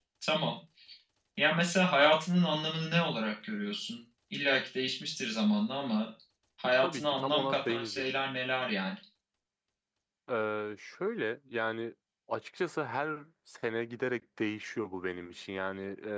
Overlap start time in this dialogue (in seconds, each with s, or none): 6.8 s